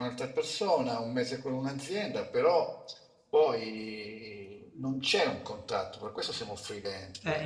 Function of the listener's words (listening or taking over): taking over